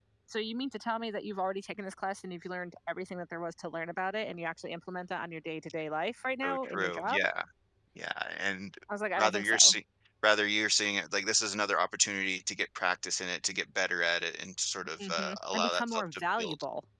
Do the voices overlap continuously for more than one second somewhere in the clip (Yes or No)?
Yes